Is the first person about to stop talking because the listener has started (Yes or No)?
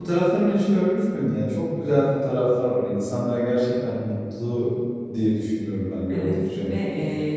Yes